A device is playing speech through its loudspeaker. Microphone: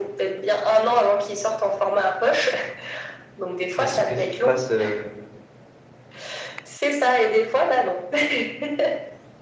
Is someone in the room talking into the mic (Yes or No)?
Yes